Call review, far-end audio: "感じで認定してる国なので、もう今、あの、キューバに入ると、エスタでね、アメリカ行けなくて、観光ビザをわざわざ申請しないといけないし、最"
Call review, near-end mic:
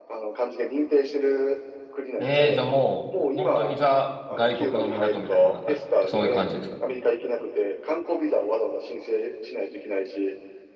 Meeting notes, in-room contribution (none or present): present